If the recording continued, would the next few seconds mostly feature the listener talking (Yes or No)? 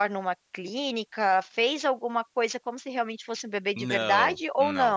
Yes